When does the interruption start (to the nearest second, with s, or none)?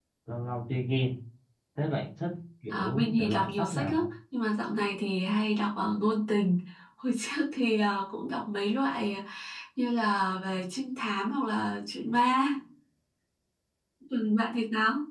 3 s